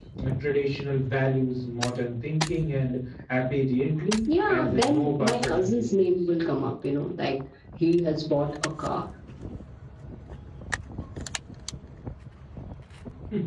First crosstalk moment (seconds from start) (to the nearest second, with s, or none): 4 s